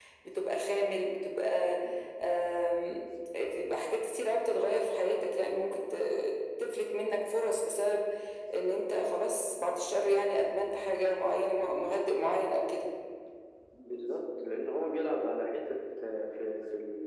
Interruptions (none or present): none